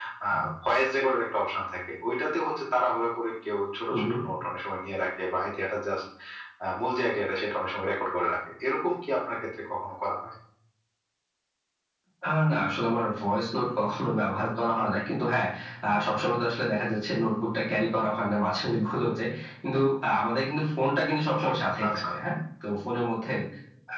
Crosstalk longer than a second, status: none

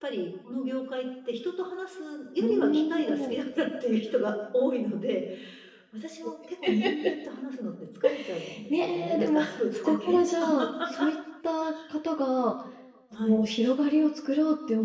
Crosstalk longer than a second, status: present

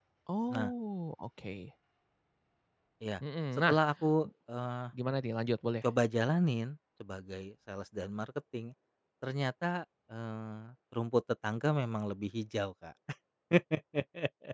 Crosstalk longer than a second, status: none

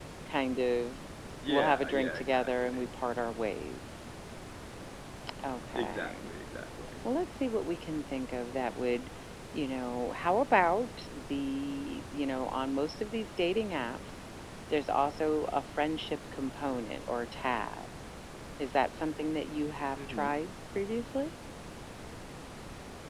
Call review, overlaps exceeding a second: present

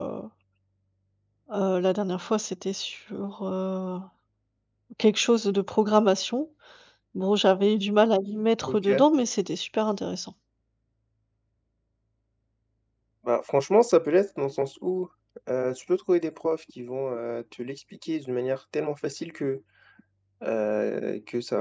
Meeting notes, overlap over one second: none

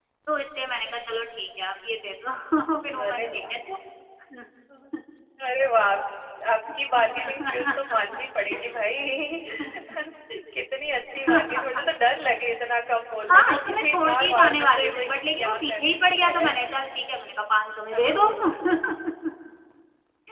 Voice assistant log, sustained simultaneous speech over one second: present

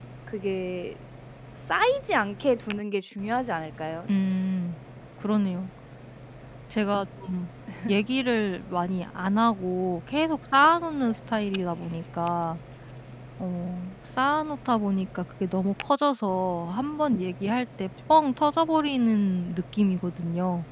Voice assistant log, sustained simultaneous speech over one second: none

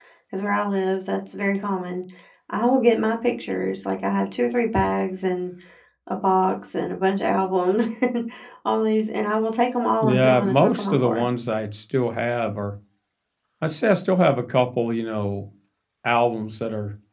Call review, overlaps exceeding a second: present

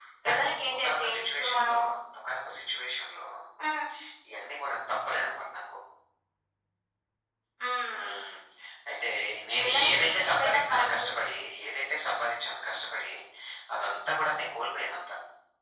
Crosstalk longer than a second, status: present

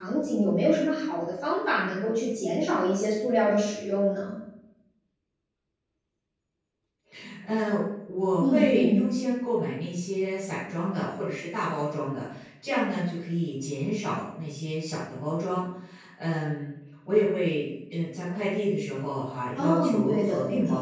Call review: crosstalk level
present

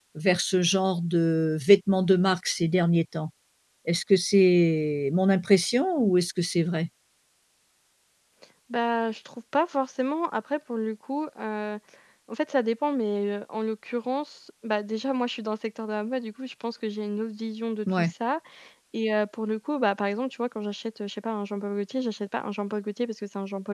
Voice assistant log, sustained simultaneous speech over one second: none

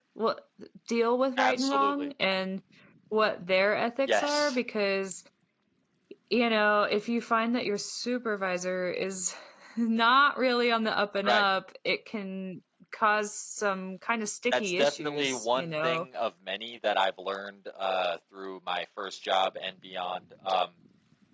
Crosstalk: present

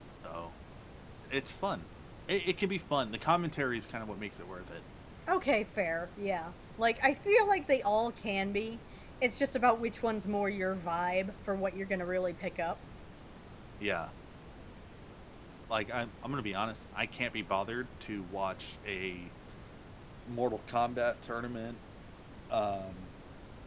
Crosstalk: none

